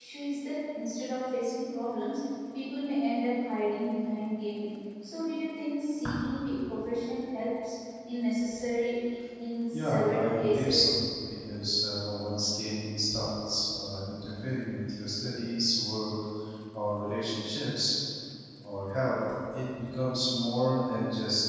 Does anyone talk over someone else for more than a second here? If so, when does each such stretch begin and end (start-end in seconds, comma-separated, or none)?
9.7-10.9